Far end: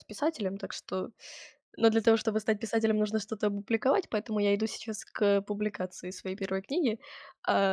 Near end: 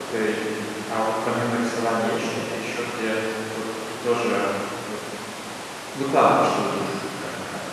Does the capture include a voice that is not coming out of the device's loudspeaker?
Yes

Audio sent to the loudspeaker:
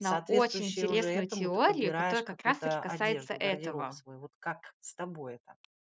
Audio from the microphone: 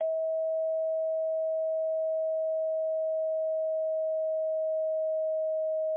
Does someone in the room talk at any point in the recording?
No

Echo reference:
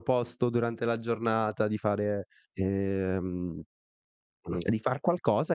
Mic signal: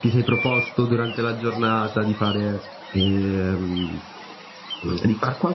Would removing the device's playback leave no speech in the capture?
Yes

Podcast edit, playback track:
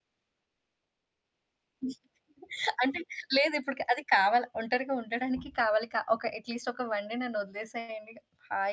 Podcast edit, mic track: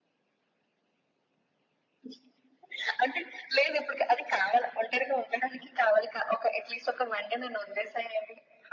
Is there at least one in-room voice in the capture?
No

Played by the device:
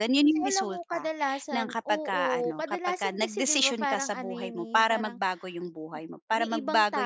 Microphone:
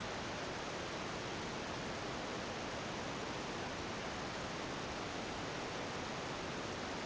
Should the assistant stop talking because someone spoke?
No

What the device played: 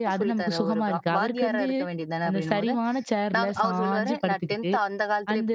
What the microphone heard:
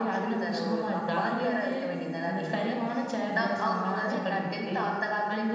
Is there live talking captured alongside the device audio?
No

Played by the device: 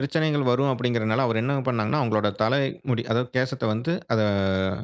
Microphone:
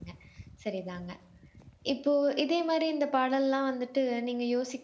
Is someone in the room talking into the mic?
Yes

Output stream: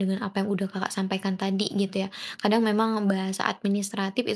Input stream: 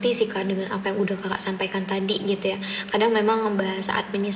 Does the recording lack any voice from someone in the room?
Yes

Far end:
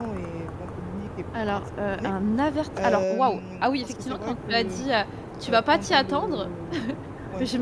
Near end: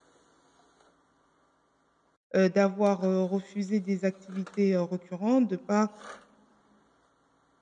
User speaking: Yes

